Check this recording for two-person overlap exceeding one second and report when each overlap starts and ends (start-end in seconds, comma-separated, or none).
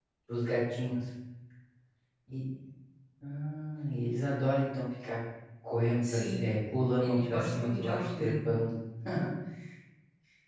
7.0-8.3